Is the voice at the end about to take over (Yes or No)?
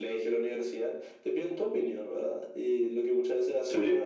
No